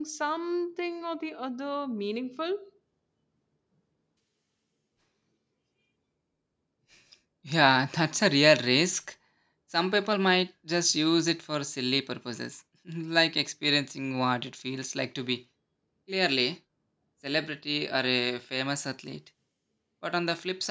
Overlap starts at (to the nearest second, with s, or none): none